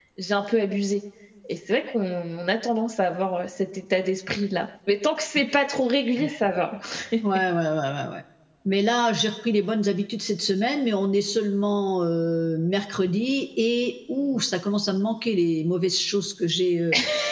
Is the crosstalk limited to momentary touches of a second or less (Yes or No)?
Yes